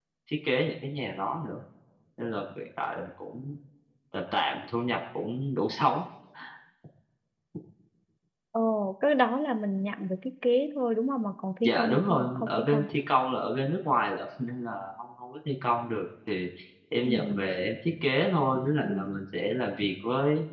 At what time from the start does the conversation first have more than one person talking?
12 s

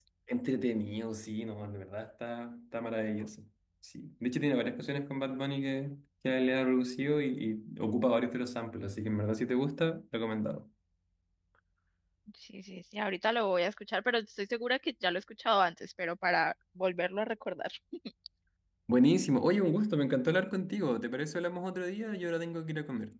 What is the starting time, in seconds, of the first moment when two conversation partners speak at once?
none

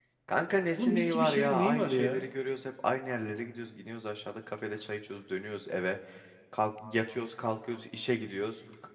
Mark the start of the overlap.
1 s

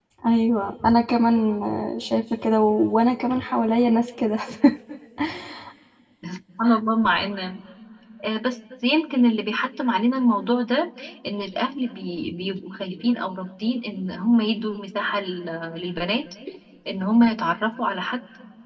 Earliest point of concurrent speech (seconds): none

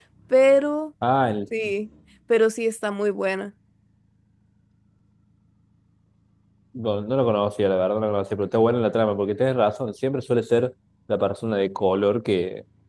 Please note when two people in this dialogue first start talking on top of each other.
none

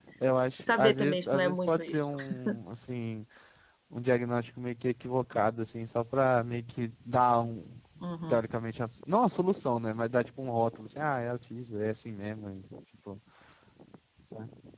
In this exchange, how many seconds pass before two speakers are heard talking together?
1 s

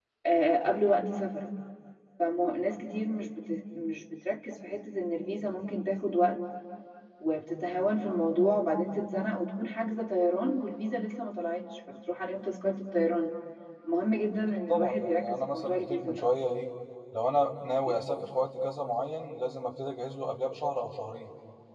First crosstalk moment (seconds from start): 15 s

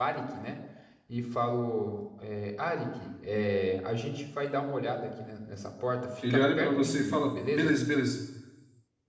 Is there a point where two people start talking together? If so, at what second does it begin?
6 s

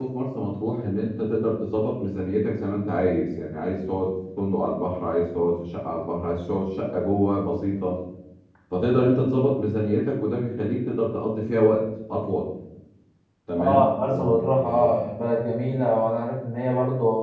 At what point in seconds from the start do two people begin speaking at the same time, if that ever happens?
14 s

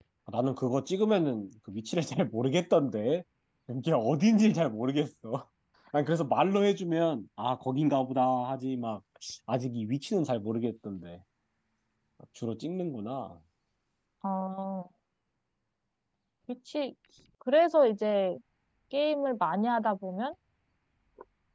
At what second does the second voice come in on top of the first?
none

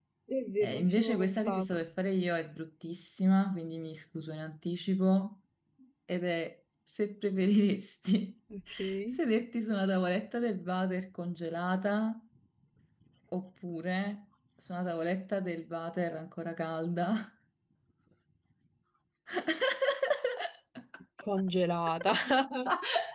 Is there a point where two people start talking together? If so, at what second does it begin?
1 s

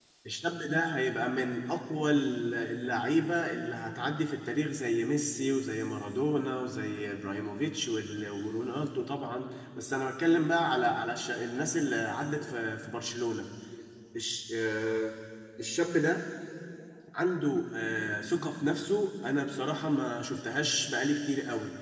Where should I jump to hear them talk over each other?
none

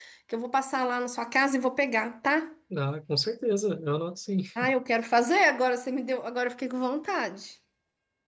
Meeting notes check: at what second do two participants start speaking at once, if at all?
none

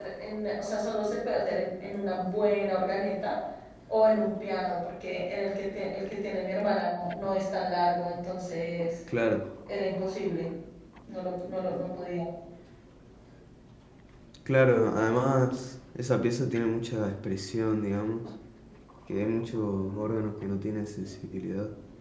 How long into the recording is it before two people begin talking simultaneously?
none

